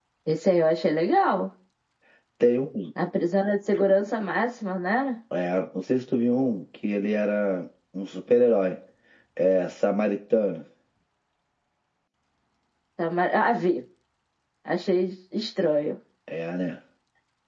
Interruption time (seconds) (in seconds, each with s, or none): none